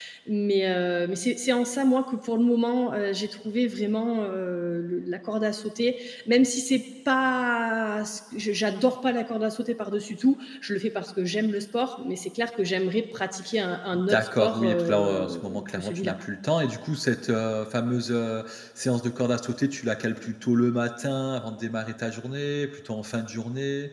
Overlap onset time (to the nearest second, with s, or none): 14 s